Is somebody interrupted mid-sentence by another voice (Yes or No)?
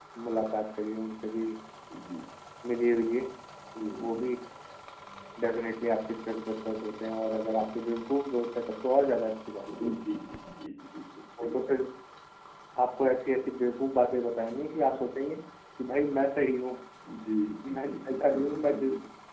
Yes